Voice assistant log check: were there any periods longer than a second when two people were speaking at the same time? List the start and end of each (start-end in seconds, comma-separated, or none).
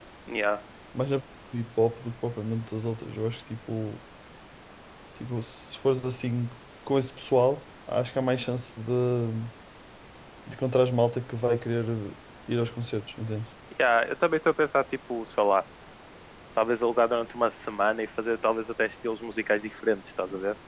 none